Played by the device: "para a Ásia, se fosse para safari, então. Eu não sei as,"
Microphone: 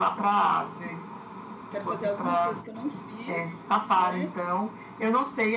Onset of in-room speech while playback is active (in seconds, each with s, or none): 1.7 s